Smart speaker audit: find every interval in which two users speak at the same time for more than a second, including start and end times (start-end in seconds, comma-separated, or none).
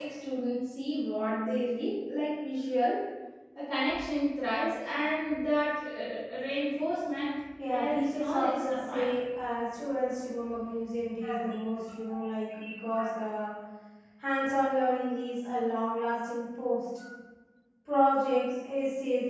7.7-9.1